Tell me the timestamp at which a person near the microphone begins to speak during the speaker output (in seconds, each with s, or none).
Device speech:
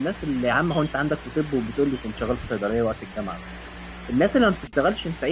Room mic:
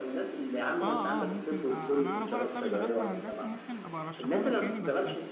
0.8 s